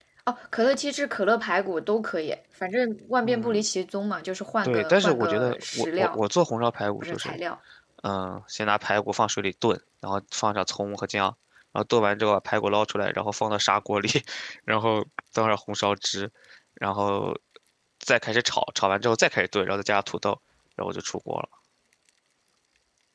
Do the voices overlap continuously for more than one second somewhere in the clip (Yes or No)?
Yes